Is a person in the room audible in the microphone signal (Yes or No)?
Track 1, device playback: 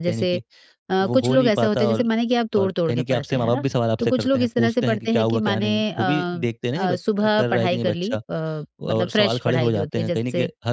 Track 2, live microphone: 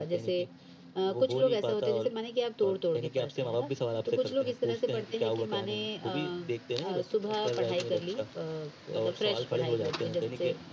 No